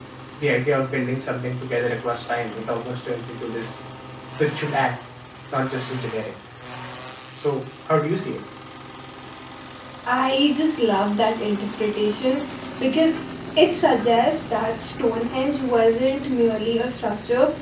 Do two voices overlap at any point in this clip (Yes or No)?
No